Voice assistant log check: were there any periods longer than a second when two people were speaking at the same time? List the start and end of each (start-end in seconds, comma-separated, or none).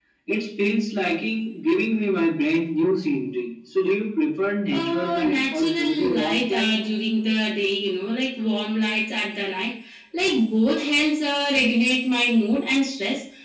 4.7-6.7